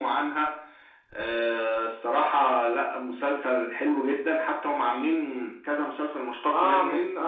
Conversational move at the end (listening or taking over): taking over